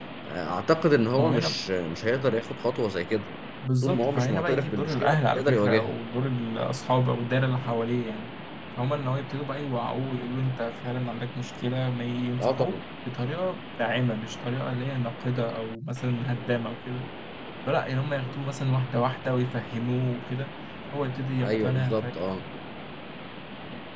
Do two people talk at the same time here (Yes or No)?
Yes